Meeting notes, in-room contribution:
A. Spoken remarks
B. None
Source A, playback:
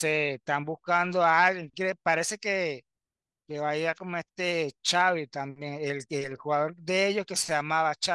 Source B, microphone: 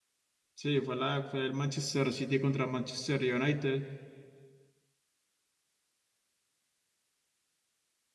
A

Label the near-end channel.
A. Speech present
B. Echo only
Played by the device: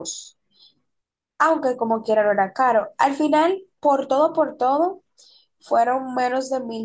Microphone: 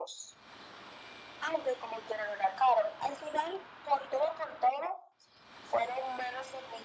B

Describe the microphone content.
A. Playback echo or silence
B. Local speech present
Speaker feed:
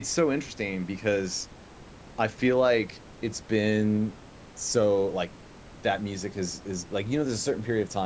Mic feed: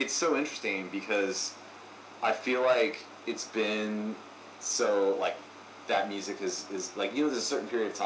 A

